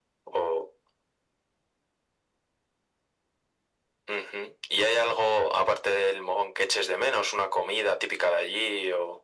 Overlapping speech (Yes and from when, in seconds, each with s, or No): No